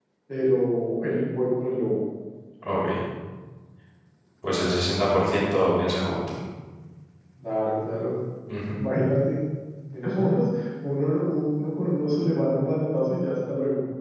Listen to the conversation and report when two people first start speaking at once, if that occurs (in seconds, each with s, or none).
none